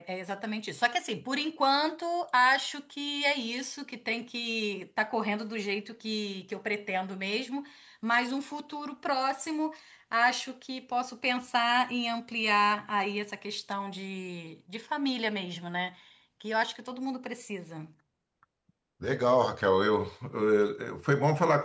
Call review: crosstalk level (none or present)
none